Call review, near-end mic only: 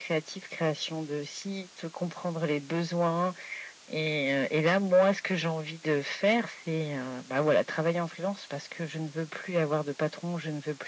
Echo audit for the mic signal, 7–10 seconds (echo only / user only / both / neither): echo only